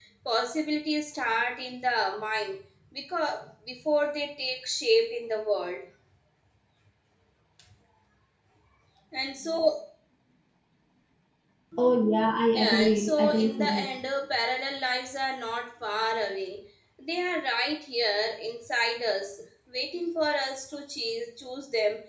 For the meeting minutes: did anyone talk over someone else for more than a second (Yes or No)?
Yes